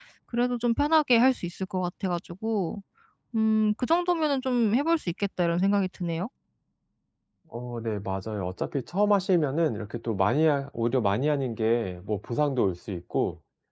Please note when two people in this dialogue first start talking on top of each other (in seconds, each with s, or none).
none